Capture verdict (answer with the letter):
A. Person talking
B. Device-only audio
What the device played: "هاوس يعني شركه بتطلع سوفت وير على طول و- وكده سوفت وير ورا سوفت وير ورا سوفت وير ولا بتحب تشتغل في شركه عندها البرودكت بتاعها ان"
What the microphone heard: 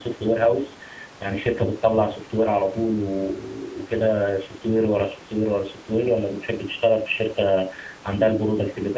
B